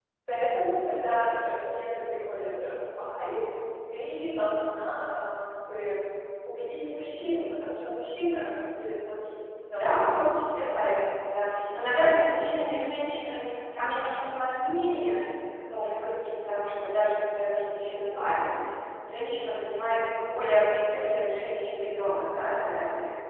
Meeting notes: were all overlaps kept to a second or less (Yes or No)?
Yes